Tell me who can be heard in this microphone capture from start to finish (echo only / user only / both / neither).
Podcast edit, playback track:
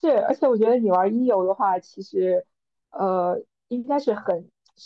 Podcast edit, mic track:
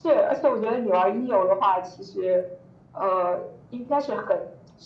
echo only